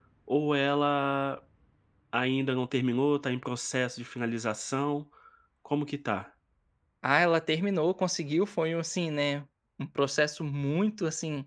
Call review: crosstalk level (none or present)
none